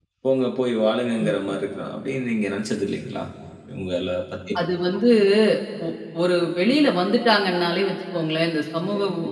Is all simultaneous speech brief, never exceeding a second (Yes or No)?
Yes